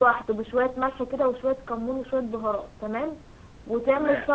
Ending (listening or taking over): listening